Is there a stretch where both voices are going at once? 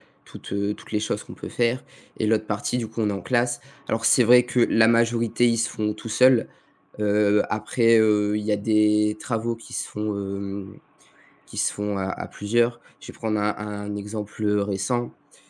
No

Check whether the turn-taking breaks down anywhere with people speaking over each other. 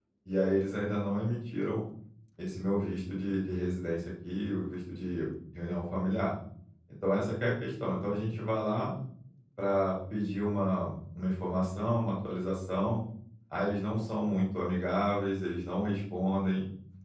No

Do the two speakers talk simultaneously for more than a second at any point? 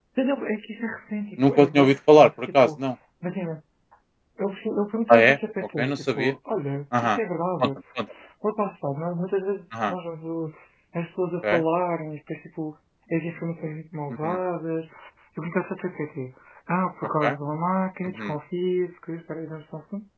Yes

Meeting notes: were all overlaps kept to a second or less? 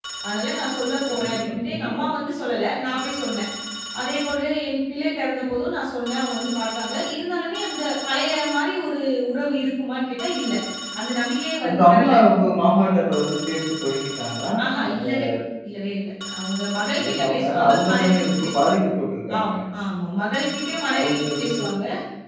No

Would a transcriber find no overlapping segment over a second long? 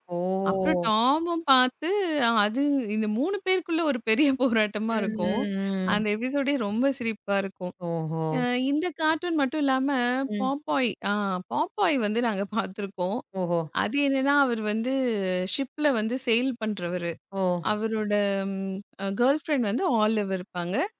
Yes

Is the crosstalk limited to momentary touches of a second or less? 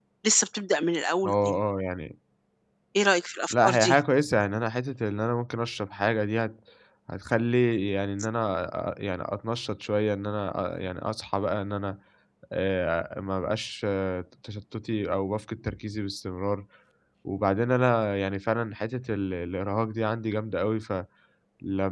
Yes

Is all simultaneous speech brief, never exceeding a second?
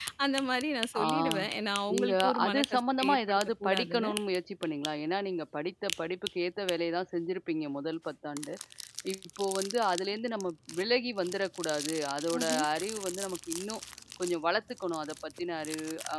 No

